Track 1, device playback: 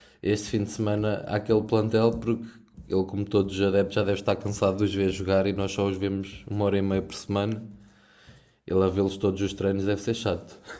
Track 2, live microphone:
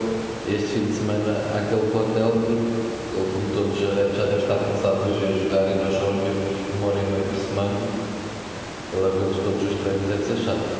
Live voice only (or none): none